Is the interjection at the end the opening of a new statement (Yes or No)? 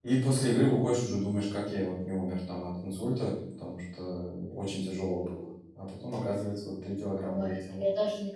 Yes